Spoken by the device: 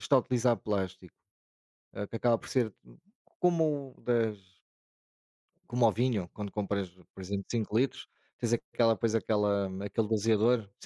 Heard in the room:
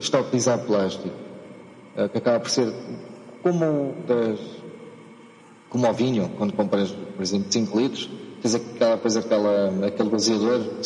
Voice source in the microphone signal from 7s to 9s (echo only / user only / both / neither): echo only